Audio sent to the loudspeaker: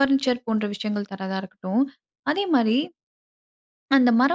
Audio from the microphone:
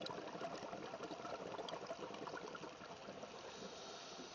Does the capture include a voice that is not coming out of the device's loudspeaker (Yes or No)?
No